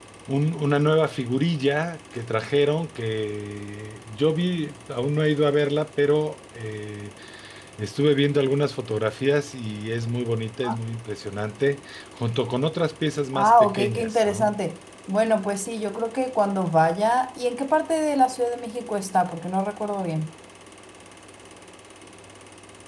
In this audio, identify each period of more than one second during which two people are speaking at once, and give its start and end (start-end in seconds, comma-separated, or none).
13.3-14.6